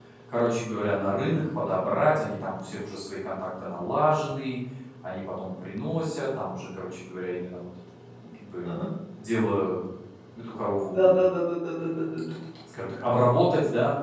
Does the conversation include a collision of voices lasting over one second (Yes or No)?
No